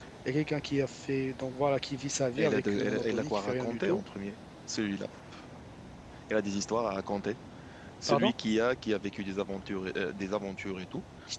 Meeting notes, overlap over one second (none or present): present